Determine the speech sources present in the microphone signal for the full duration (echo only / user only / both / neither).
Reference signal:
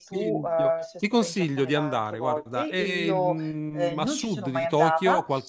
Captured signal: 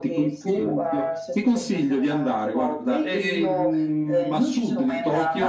echo only